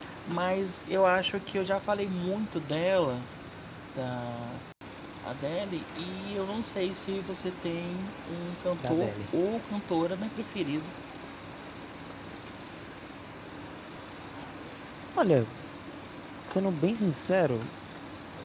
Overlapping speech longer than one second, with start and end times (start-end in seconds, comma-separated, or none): none